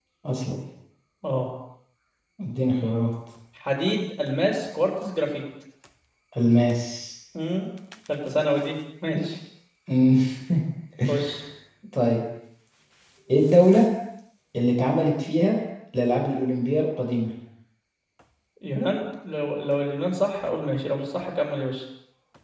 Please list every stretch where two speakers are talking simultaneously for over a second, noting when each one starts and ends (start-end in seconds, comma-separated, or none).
none